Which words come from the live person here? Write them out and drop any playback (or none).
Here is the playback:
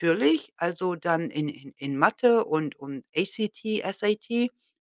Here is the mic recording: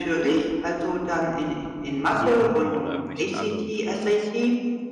Zoom oder irgendwelchen anderen Tools?